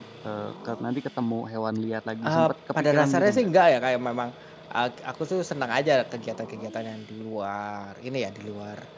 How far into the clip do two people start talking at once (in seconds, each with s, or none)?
2.2 s